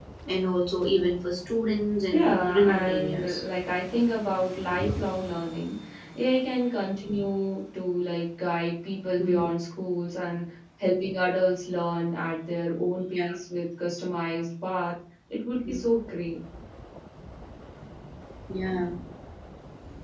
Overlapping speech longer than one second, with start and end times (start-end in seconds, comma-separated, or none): 2.1-3.4